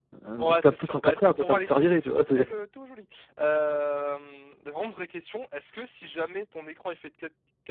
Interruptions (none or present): present